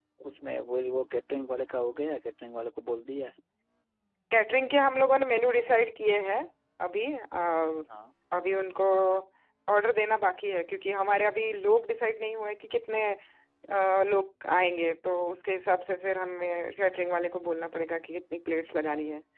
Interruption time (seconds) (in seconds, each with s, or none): none